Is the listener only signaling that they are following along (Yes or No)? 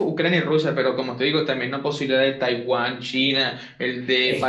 No